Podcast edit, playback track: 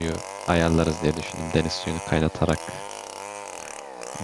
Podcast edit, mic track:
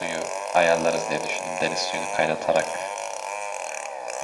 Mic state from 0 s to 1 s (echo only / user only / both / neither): echo only